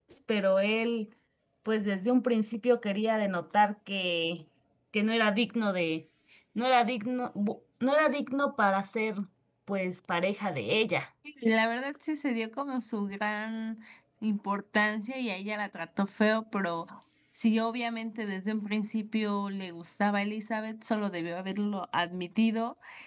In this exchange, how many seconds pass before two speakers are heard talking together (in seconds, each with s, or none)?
none